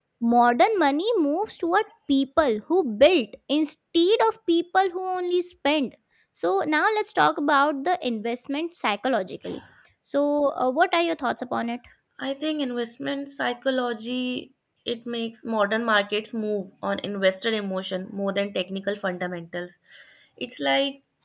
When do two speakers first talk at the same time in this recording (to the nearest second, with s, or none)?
none